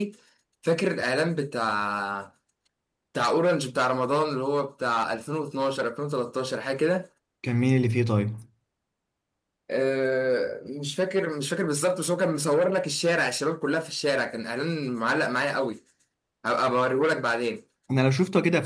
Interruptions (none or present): none